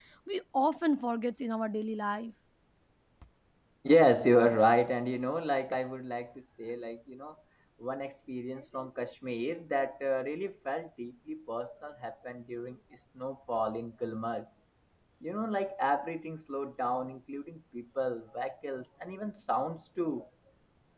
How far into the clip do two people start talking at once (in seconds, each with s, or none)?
none